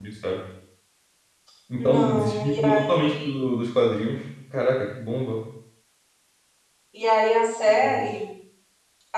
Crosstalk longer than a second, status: present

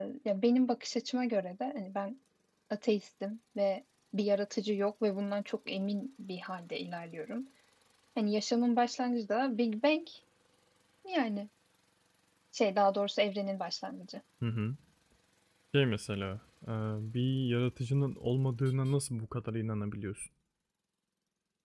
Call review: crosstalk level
none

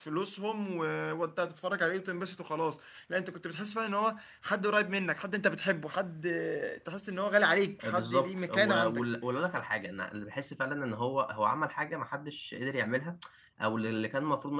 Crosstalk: present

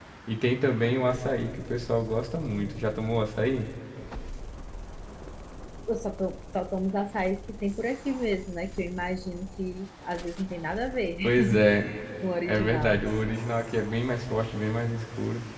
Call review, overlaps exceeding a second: none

